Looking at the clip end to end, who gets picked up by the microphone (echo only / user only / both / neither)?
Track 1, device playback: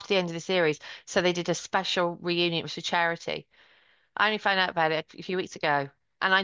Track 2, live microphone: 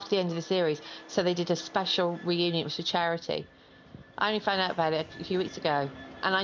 echo only